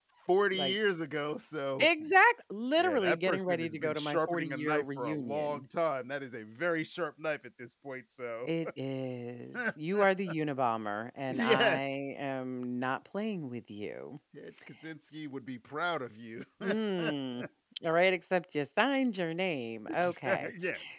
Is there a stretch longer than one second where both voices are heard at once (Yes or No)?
Yes